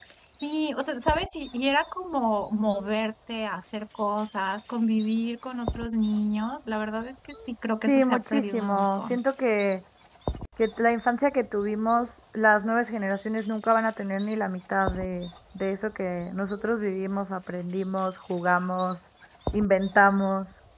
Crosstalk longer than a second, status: present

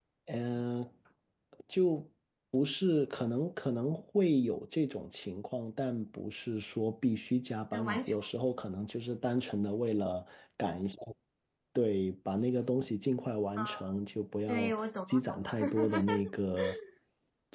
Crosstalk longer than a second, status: present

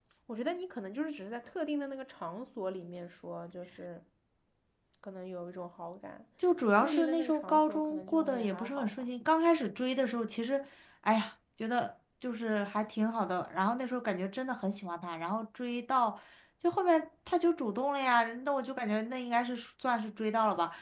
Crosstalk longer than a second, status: present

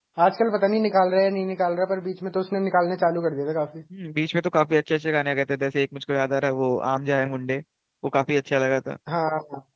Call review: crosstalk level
none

